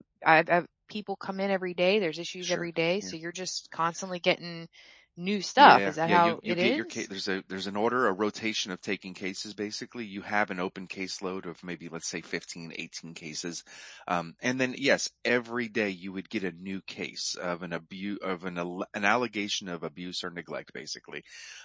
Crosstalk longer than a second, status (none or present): present